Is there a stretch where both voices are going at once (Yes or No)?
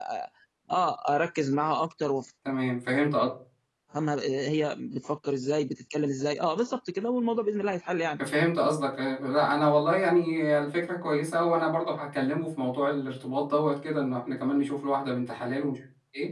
No